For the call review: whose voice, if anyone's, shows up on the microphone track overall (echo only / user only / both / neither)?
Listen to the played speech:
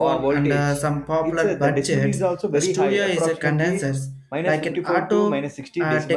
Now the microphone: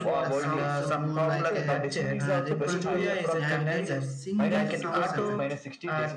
both